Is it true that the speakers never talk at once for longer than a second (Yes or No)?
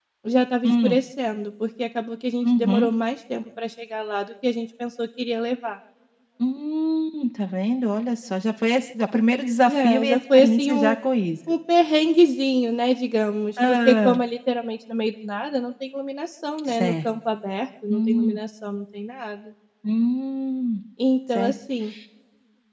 No